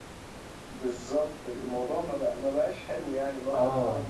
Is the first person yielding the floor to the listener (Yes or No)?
No